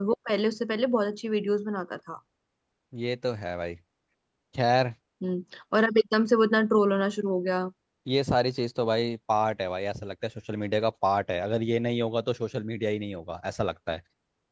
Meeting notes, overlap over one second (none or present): none